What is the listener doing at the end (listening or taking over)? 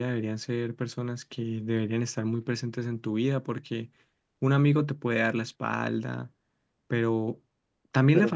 listening